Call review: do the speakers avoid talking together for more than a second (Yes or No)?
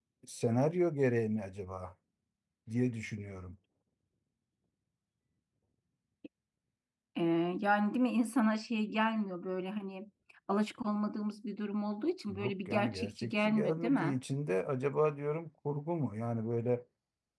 No